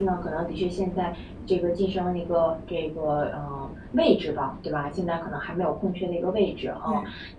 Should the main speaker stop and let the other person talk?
No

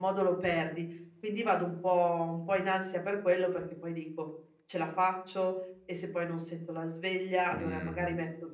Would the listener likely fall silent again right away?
Yes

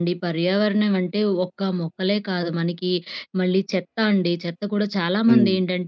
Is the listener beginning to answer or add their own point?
No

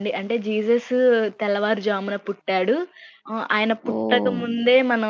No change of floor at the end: Yes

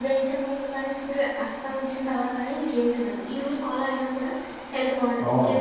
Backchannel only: No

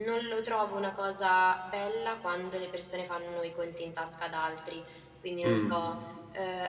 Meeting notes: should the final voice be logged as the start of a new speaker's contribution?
No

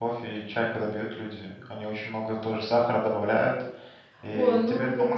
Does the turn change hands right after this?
Yes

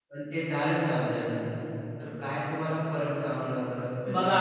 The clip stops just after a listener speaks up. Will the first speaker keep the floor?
Yes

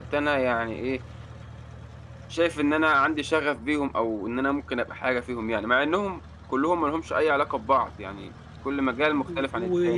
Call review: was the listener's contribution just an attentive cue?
No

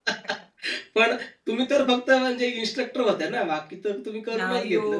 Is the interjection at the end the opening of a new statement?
Yes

